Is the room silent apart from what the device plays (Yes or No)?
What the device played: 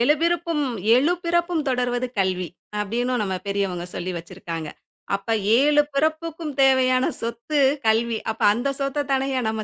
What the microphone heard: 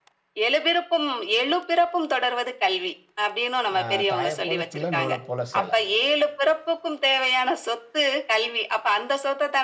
No